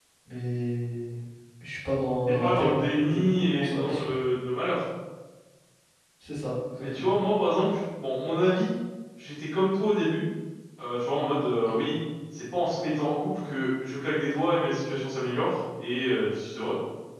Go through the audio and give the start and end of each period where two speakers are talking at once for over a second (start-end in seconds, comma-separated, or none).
2.3-4.1